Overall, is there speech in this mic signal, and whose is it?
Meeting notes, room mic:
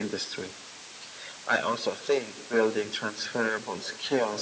echo only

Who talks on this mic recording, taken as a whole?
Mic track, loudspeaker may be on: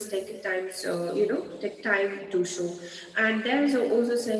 echo only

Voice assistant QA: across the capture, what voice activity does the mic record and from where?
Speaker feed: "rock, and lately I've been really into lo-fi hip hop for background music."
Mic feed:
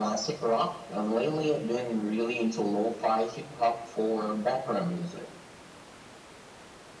echo only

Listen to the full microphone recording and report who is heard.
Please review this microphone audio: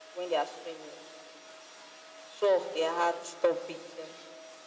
echo only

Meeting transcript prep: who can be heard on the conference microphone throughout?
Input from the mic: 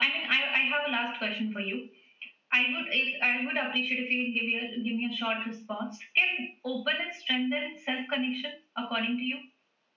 echo only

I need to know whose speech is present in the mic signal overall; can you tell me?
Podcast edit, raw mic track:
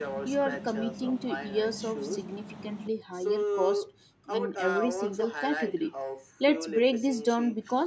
both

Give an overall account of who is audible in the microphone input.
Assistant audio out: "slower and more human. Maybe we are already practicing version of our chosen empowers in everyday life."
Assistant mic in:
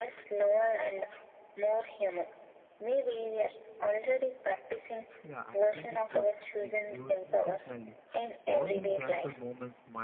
both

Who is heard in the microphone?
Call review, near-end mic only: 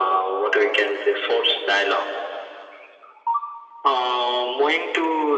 echo only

